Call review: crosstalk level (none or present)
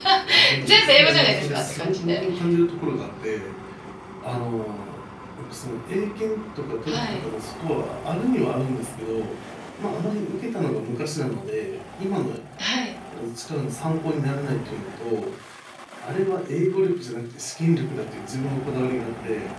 present